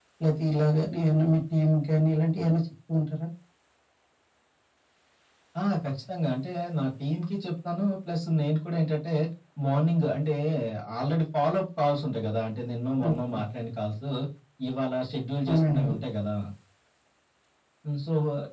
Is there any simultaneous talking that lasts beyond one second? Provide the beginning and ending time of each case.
none

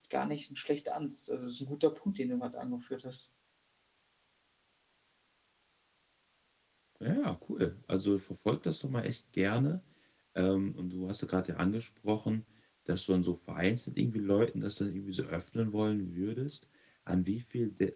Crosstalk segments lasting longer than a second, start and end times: none

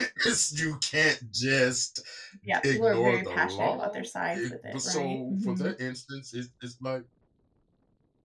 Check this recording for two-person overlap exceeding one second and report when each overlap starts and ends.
2.6-5.7

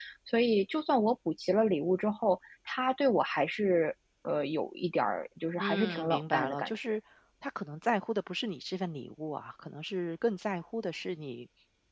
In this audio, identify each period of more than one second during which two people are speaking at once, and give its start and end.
5.6-6.9

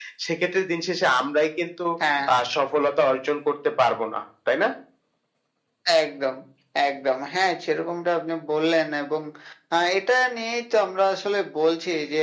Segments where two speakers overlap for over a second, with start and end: none

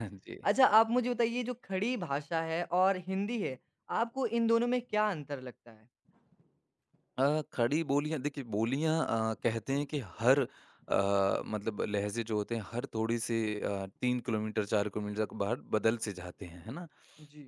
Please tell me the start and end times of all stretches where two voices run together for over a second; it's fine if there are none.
none

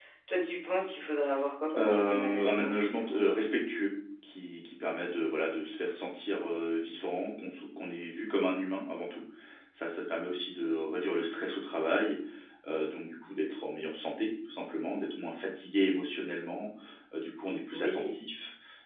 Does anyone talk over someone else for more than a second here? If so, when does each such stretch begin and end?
1.8-3.2

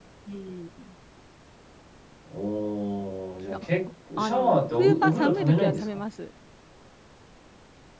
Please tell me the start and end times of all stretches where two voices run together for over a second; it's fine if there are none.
4.2-5.8

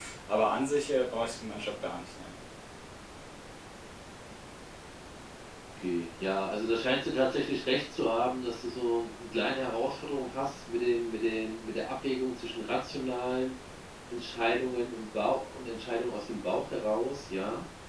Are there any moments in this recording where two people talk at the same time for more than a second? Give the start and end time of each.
none

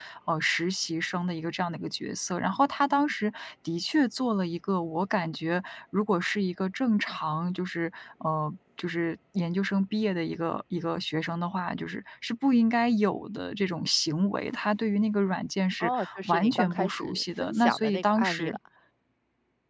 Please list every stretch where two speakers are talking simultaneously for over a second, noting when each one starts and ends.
15.8-18.6

